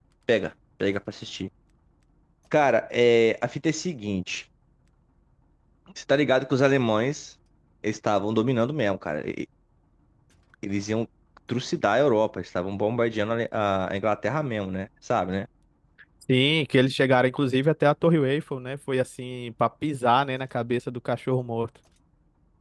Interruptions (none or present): none